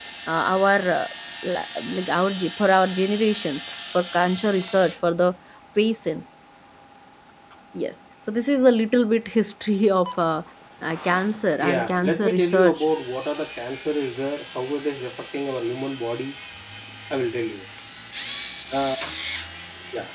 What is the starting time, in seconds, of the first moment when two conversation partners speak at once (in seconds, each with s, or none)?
11.6 s